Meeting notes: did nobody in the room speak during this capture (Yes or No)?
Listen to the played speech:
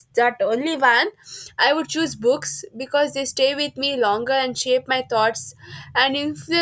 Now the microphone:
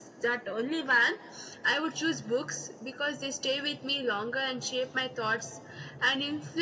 Yes